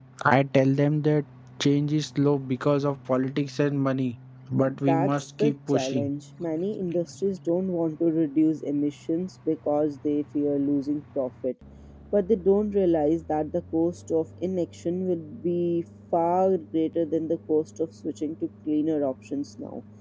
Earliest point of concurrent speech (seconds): 4.7 s

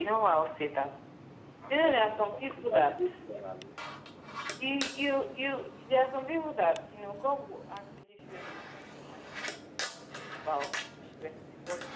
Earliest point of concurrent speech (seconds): 1.7 s

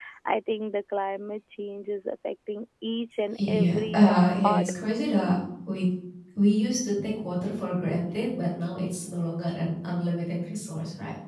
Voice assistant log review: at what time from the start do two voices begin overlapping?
3.4 s

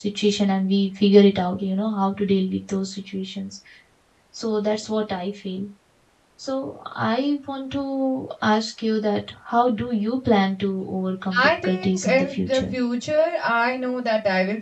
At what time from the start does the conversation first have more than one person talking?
11.3 s

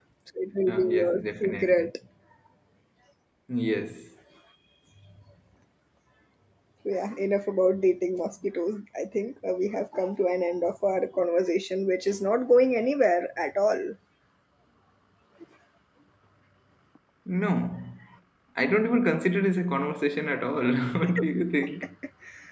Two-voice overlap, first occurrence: 0.7 s

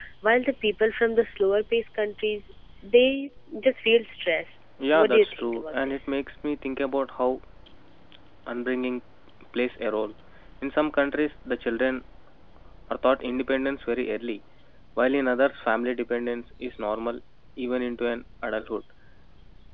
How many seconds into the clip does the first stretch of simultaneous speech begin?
4.8 s

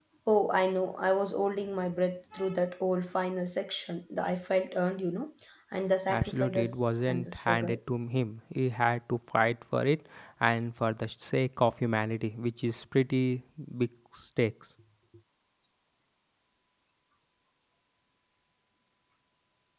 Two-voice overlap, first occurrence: 6.1 s

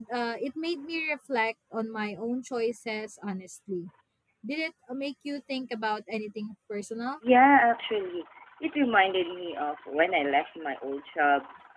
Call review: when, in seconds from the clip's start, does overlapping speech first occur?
none

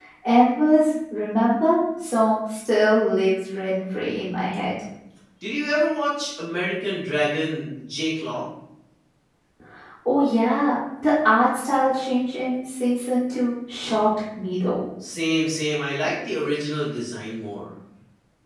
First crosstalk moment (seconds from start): none

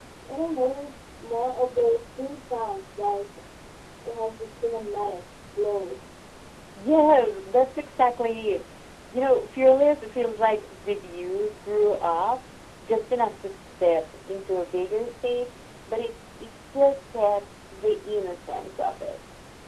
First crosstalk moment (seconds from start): none

